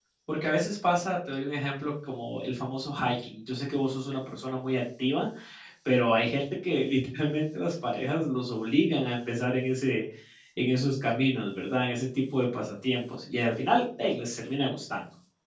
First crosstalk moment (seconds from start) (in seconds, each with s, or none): none